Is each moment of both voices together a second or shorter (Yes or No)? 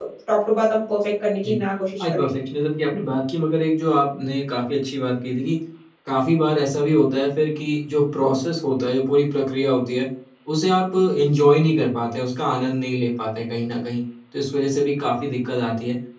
Yes